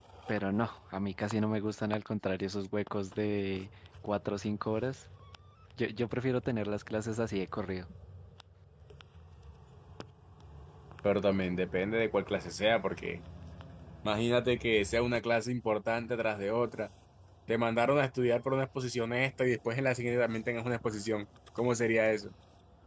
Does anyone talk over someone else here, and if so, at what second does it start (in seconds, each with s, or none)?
none